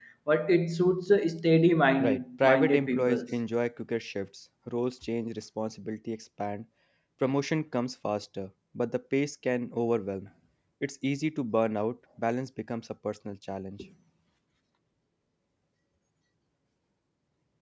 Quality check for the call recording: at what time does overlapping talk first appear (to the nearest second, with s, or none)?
2 s